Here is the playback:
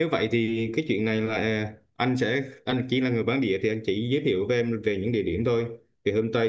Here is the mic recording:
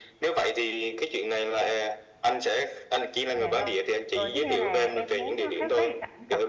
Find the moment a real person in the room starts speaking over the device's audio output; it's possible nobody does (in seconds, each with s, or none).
3.3 s